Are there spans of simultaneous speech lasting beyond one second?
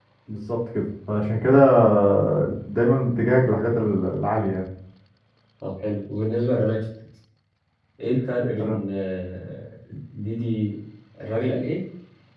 No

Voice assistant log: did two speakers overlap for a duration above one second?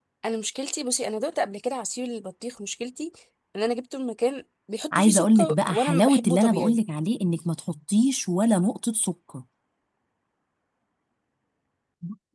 Yes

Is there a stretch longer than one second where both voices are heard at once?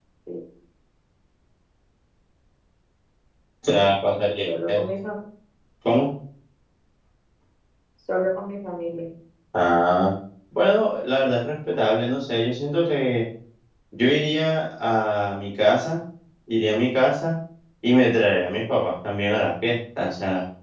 No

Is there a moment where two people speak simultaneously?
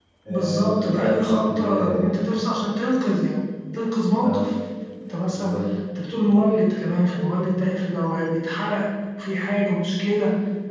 Yes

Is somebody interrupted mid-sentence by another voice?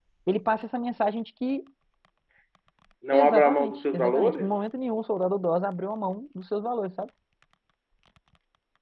Yes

